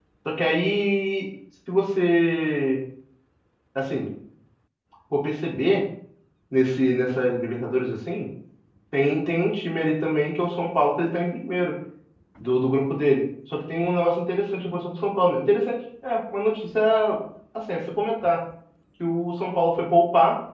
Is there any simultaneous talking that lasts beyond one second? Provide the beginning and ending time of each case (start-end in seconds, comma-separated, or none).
none